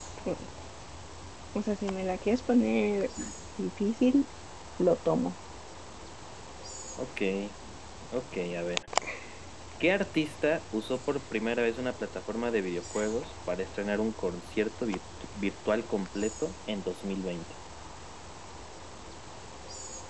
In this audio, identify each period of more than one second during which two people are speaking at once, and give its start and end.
none

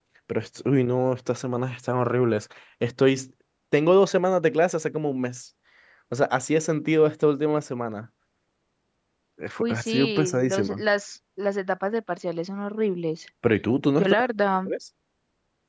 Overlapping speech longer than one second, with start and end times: 9.6-10.8

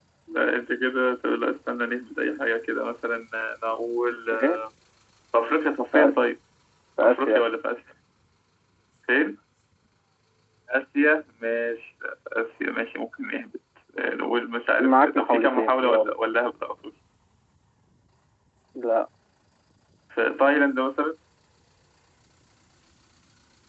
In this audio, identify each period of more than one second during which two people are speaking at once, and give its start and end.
14.8-16.1

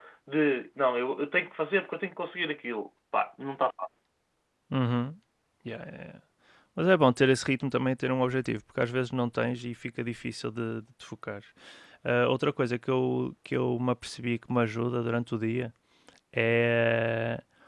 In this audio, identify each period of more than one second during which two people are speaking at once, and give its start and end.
none

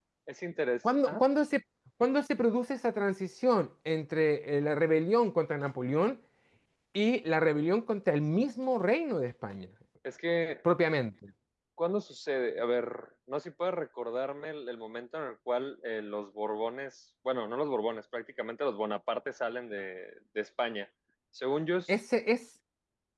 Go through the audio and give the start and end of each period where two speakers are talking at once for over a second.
none

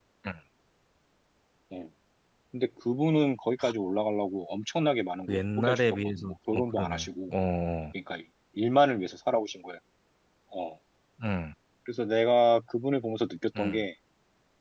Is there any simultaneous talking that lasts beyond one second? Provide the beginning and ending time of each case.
5.3-7.3

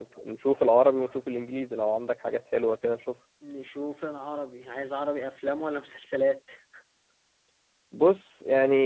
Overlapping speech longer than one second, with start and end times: none

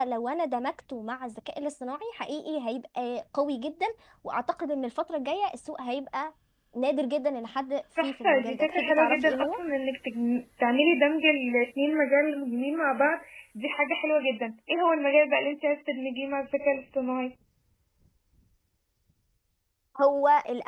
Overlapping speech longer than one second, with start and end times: 8.0-9.6

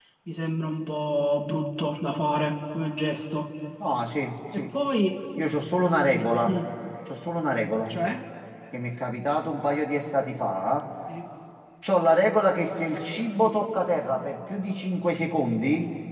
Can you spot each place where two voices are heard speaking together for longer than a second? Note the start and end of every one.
none

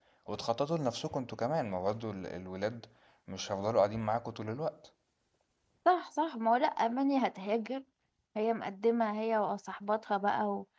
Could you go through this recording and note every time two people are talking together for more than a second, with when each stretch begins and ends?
none

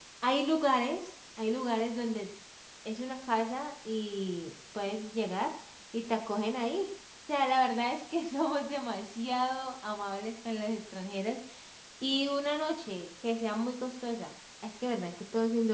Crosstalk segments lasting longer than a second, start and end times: none

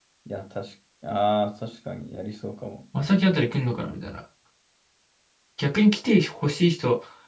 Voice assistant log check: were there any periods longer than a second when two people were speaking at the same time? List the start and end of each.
none

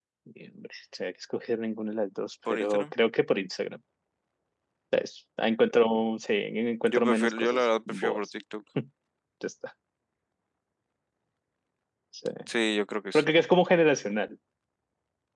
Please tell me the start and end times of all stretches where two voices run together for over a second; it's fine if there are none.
6.9-8.2

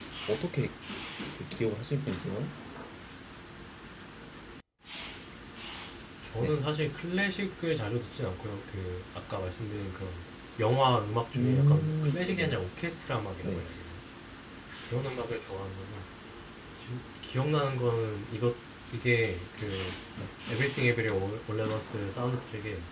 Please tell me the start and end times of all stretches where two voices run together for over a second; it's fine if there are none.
11.3-12.6

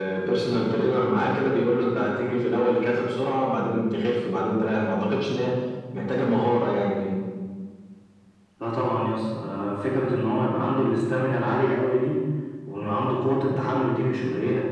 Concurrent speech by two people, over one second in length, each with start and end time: none

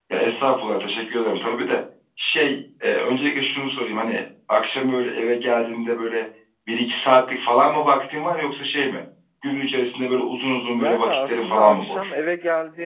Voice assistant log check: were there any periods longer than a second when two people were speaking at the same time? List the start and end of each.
10.7-12.1

